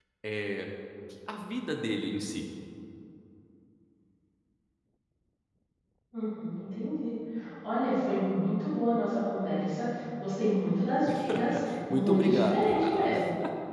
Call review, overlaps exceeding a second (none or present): present